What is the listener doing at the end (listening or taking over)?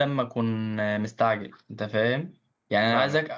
listening